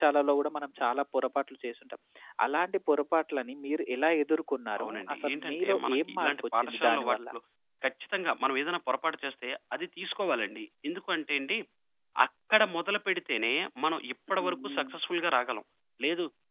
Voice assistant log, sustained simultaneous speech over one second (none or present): present